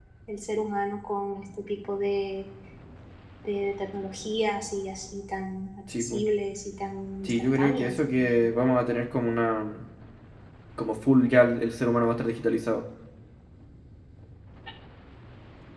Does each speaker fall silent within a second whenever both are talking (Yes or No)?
No